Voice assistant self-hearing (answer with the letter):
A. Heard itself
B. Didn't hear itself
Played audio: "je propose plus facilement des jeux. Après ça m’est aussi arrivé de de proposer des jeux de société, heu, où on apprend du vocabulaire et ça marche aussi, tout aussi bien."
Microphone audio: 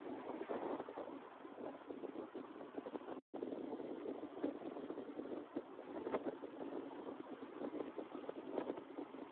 B